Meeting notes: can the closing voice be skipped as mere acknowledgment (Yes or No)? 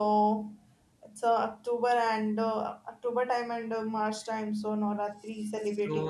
No